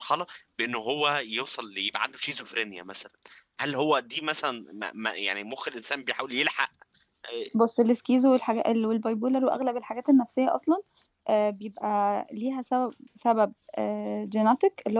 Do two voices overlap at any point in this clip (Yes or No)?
No